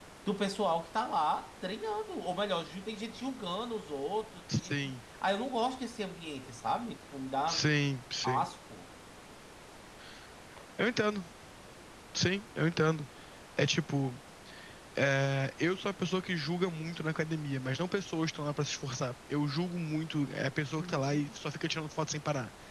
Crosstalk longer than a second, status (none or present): none